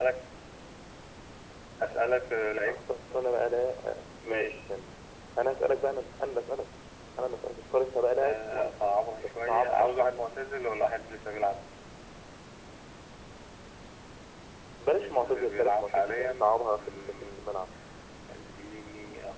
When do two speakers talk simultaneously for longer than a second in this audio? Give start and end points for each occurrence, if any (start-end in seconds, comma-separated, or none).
8.2-10.2, 15.0-17.4